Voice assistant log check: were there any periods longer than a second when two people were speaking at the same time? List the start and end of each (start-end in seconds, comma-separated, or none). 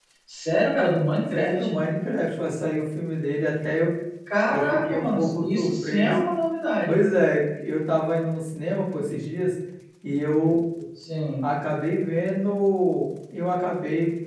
4.5-6.2